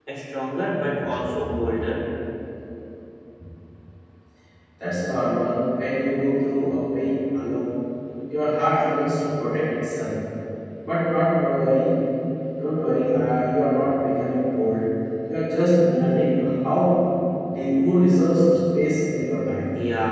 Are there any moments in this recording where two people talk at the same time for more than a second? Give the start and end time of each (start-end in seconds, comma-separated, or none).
none